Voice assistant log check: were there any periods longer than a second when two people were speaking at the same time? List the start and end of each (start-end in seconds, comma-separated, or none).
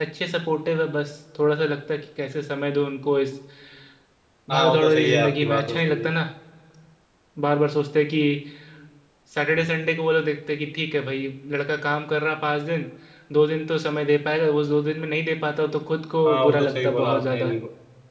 4.5-6.1, 16.3-17.5